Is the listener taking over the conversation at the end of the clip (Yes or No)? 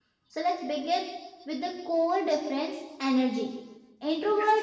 No